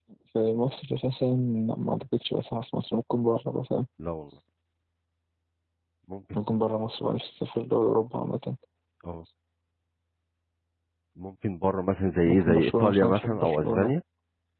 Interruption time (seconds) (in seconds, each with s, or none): 12.3 s